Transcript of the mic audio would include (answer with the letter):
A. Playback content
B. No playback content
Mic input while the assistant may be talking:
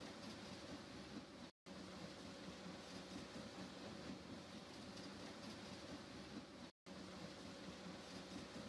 B